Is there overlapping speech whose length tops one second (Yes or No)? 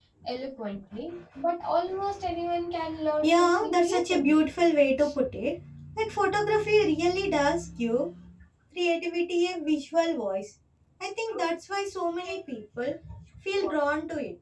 Yes